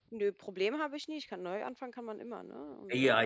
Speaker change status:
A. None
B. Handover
B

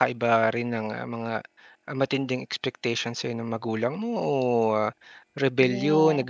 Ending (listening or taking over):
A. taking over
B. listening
B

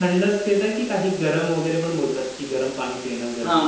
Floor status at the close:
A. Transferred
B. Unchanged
A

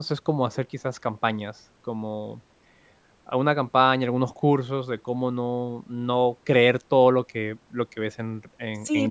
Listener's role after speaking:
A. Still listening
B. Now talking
B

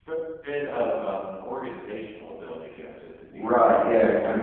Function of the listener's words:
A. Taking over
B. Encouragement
A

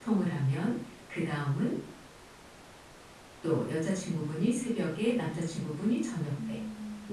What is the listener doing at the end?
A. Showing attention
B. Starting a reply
A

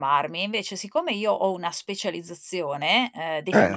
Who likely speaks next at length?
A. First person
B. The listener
A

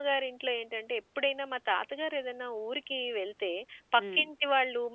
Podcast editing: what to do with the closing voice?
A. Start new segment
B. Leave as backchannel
B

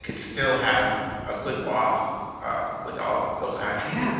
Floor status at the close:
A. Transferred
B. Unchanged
A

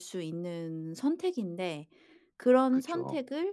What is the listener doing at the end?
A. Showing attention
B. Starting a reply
A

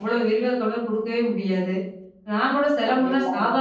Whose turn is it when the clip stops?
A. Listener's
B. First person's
B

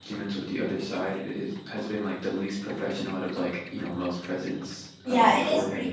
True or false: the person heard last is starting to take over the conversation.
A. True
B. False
A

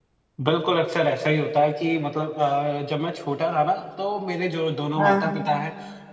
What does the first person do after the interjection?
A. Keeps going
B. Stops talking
A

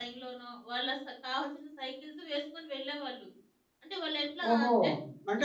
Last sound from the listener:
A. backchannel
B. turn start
B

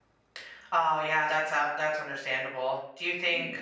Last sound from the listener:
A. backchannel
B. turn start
A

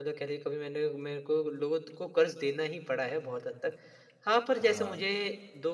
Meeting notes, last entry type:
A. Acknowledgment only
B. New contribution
A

